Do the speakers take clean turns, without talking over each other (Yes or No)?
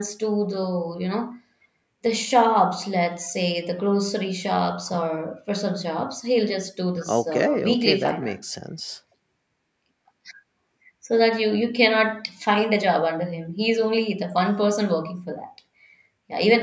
No